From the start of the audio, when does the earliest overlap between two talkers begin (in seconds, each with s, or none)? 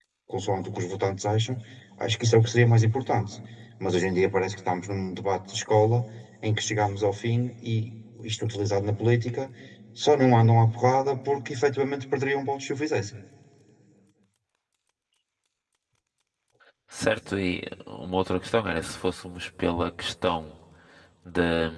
none